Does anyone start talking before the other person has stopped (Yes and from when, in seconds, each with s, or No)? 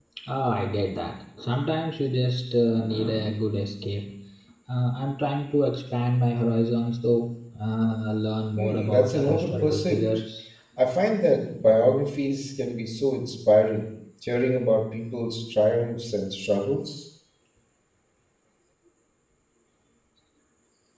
Yes, from 8.6 s